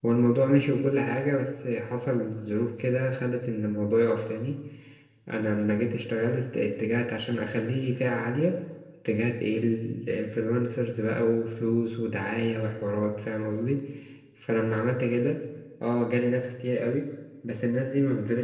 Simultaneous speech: No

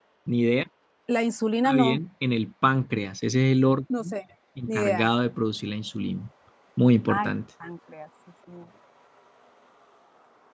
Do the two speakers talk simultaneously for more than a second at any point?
No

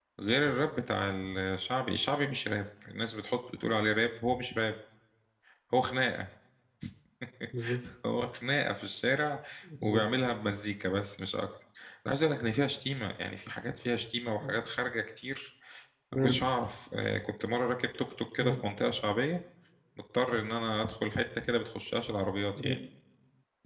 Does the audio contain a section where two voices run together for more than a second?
No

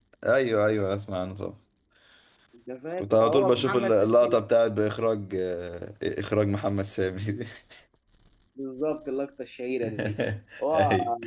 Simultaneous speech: Yes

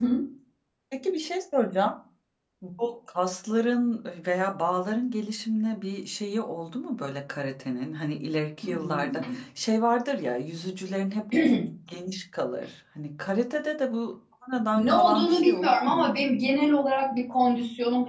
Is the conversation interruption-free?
No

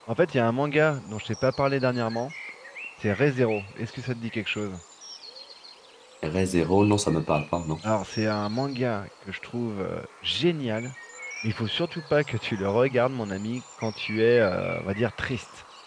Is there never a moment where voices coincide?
Yes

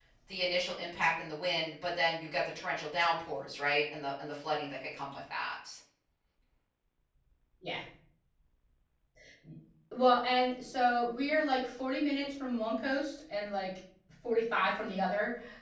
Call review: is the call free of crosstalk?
Yes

